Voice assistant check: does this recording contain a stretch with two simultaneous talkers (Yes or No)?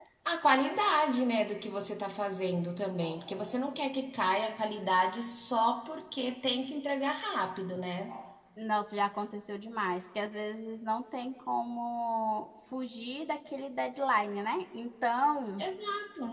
No